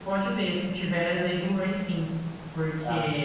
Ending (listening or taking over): listening